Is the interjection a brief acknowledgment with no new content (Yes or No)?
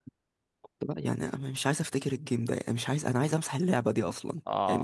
No